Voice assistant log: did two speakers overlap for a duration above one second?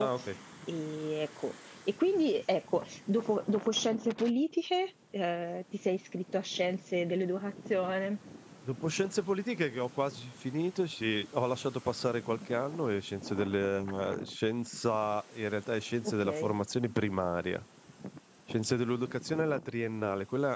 No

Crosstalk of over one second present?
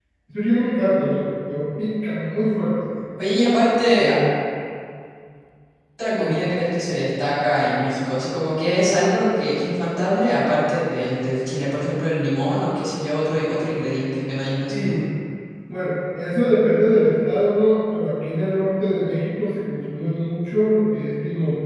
No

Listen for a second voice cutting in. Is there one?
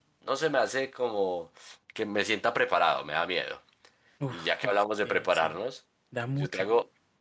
Yes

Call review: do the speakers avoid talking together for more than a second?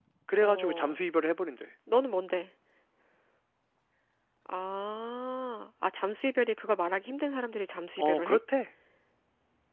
Yes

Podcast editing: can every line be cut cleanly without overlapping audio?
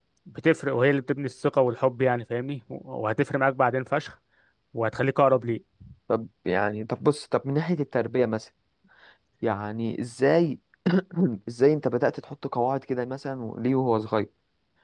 Yes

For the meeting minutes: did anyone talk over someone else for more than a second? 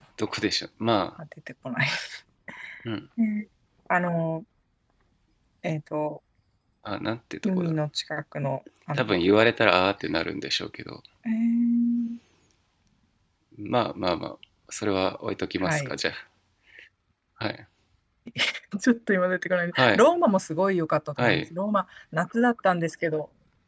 No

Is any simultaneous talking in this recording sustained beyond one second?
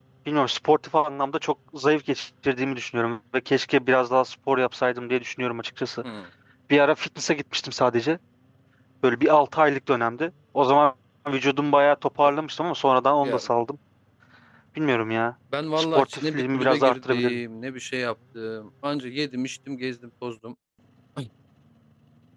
Yes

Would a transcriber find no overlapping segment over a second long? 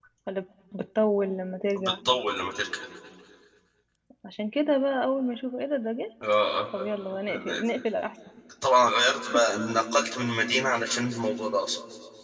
Yes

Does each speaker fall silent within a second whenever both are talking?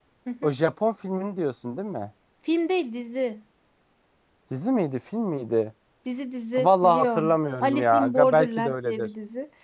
No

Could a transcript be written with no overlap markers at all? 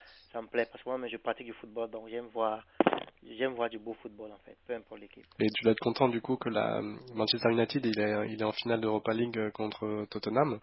Yes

